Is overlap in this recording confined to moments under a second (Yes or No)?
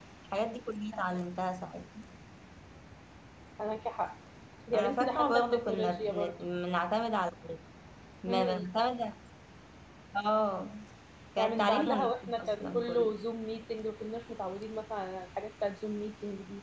No